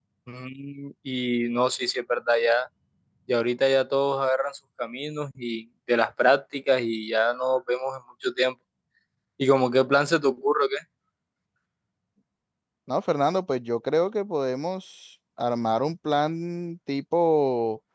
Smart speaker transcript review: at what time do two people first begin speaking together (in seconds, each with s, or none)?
none